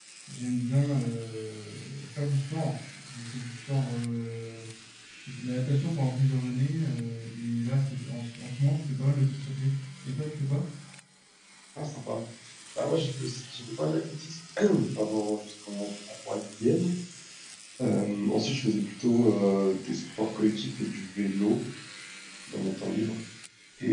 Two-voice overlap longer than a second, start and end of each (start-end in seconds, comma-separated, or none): none